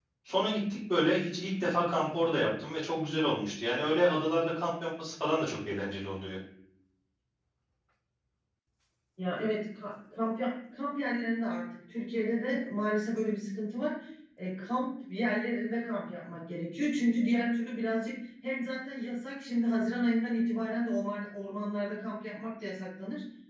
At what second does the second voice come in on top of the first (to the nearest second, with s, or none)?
none